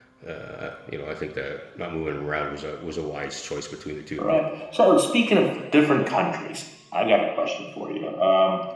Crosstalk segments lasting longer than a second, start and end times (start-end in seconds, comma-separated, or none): none